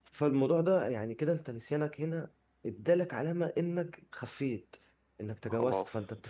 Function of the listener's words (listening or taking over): listening